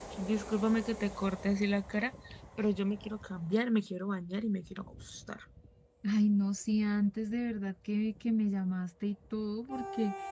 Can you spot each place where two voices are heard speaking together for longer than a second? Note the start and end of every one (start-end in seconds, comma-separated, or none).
none